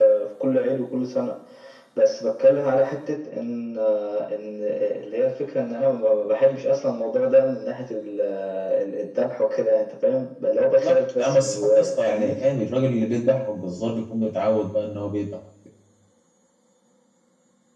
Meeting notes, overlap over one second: present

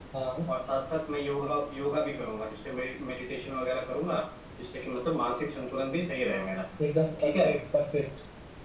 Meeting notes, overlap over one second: none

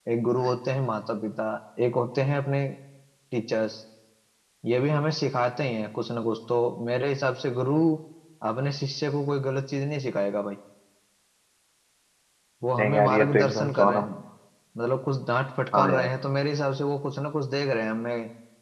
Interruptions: present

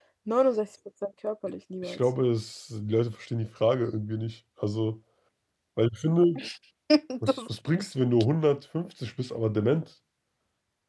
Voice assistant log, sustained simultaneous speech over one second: none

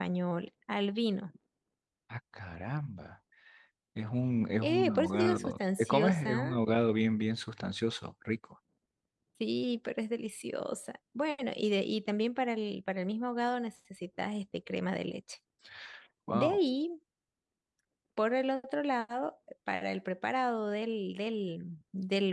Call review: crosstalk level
present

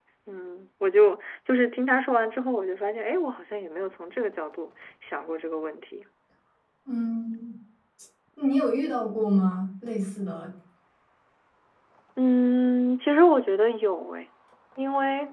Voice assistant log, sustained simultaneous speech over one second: none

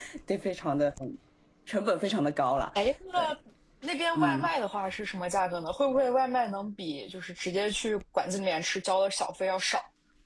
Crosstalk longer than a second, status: none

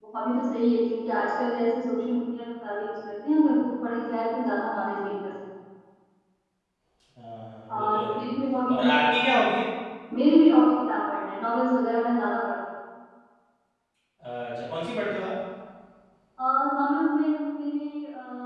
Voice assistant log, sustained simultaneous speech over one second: none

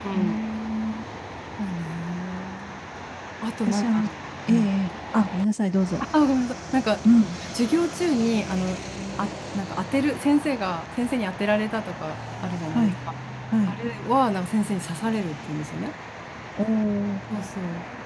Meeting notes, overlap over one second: none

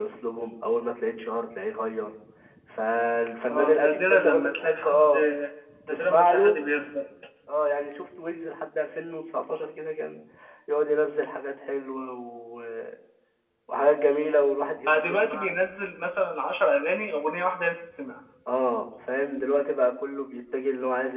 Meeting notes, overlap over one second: present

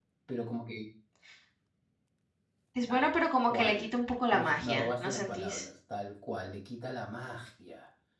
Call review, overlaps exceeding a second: present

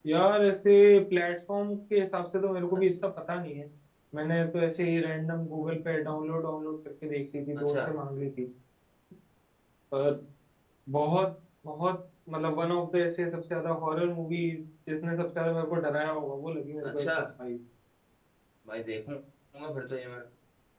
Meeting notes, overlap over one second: none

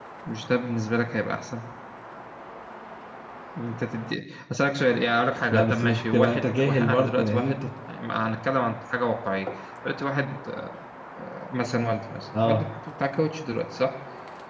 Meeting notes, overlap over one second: present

